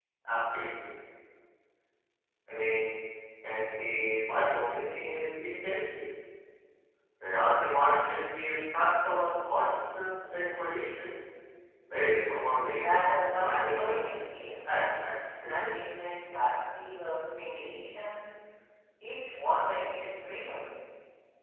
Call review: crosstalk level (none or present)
present